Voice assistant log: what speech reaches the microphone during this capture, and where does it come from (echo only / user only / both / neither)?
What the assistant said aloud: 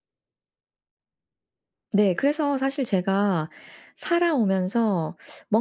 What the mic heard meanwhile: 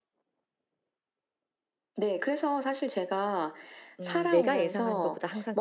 both